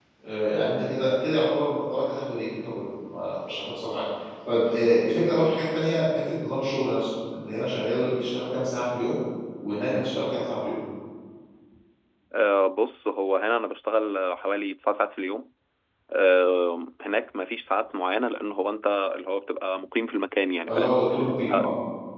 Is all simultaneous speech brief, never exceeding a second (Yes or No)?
Yes